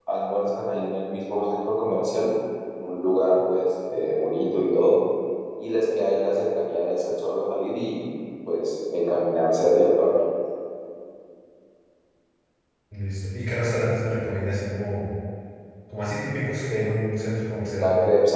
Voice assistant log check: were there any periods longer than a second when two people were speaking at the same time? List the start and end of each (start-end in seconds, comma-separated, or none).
none